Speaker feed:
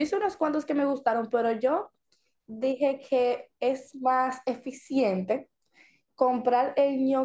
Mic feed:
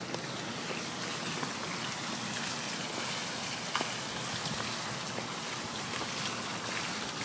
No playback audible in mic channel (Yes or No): Yes